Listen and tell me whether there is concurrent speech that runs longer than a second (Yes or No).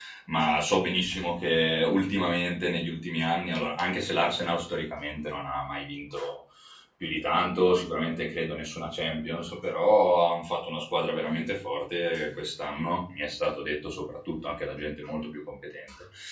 No